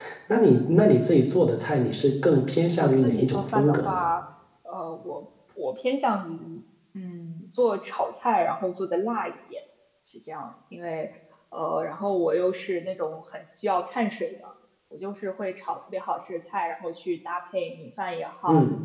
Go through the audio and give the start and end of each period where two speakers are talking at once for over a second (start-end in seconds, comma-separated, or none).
2.7-4.0